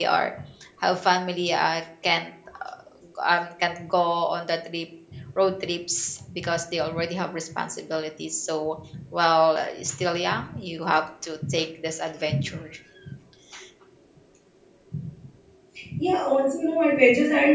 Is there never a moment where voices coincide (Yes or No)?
Yes